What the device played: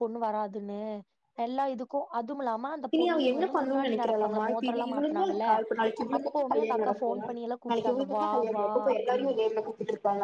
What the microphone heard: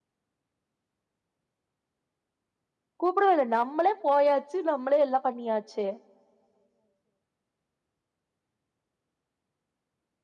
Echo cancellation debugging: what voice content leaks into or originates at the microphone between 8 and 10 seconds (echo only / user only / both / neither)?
neither